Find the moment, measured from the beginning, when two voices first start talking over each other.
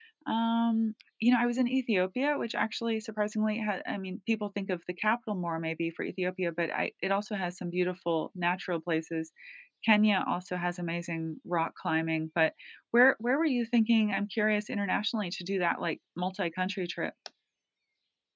none

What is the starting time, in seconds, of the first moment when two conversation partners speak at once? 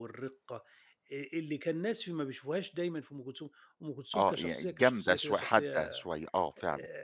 4.1 s

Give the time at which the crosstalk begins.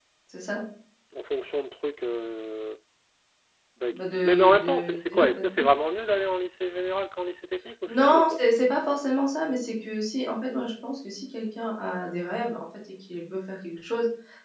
3.9 s

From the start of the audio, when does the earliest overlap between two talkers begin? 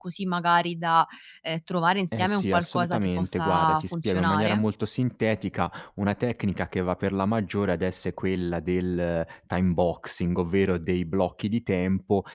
2.1 s

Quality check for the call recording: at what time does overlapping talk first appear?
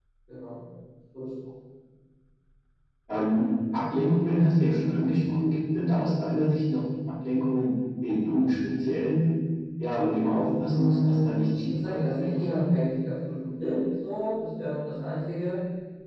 10.7 s

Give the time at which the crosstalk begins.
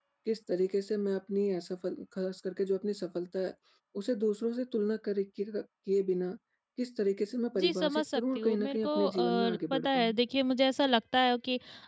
7.6 s

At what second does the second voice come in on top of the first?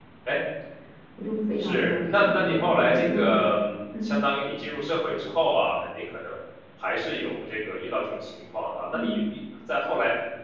1.6 s

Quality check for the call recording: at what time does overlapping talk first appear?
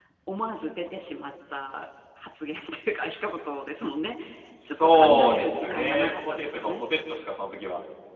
4.6 s

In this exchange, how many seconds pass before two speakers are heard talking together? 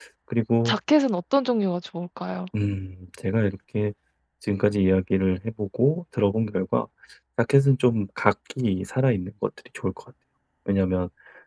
none

